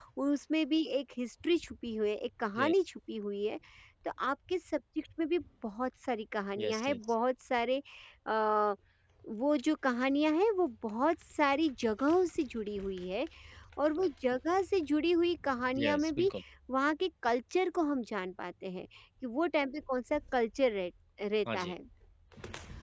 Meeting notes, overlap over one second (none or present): none